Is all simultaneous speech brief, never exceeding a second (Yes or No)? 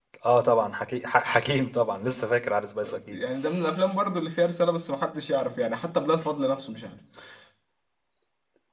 Yes